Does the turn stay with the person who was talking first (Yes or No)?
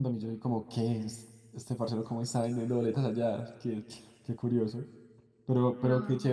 Yes